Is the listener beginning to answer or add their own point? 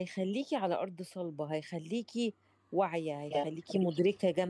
No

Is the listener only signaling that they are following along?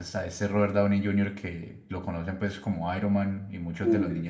Yes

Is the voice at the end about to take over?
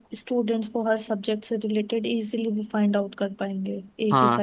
Yes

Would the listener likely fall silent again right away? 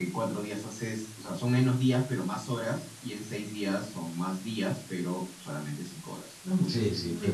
No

